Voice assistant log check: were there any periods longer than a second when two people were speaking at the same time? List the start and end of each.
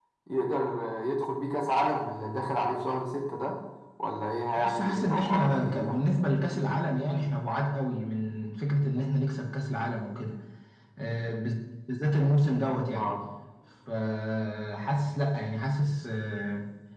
4.6-6.0

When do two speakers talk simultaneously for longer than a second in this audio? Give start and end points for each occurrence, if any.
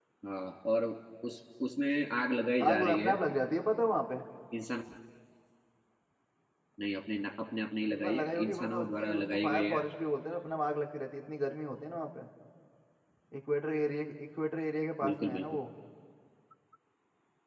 7.9-9.8

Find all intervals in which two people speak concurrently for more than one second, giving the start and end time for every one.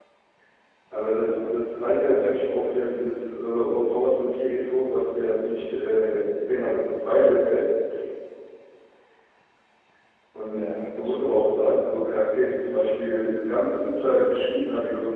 10.5-11.8

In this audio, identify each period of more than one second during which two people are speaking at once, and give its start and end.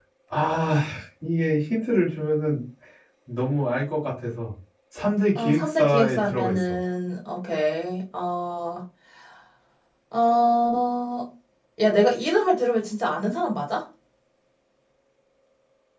5.3-6.8

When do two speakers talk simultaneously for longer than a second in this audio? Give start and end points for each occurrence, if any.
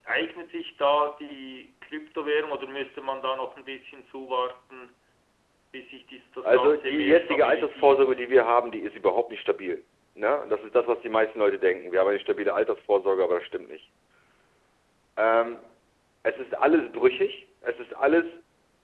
6.4-8.1

